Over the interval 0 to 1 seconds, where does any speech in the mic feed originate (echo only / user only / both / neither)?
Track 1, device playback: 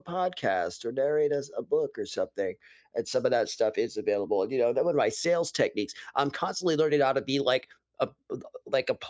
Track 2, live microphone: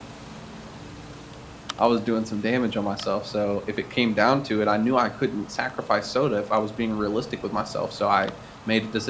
neither